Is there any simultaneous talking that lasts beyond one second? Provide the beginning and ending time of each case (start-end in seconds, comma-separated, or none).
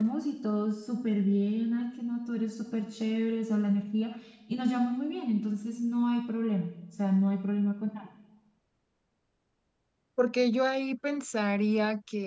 none